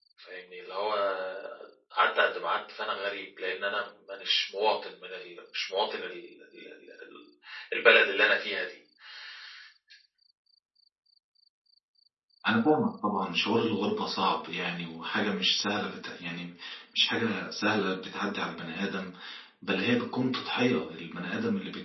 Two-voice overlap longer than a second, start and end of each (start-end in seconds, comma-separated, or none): none